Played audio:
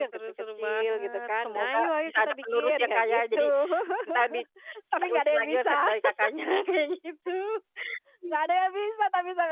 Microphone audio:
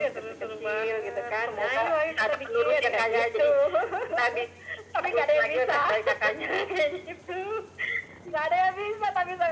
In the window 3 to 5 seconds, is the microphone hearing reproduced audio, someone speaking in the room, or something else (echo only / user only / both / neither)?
echo only